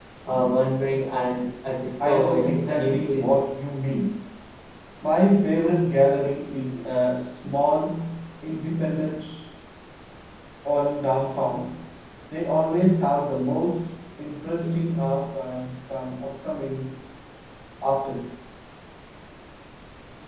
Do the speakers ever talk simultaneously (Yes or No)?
Yes